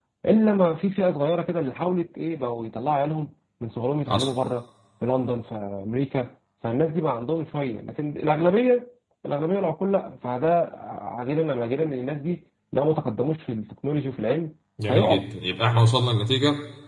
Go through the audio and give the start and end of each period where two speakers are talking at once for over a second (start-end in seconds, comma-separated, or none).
none